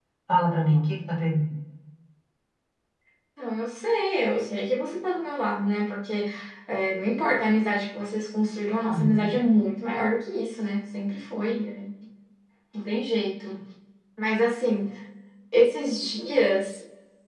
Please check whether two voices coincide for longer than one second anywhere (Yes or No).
No